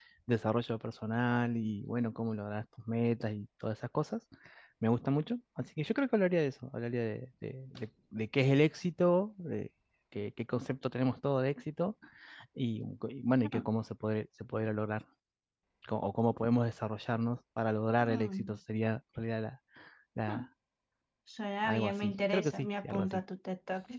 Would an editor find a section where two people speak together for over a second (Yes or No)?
Yes